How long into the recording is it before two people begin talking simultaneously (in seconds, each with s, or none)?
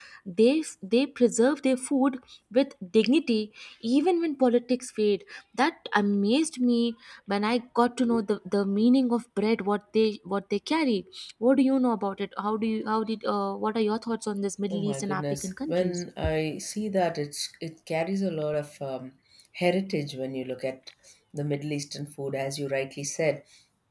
14.7 s